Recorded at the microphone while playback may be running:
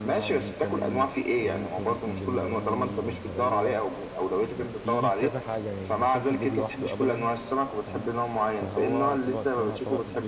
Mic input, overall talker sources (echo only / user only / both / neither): both